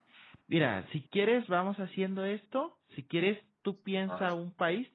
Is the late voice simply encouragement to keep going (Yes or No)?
Yes